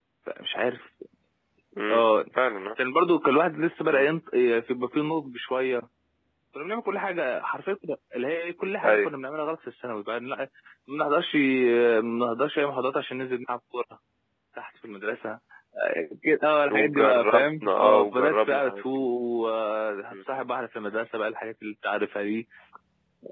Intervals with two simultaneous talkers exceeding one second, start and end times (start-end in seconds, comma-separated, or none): 16.7-19.1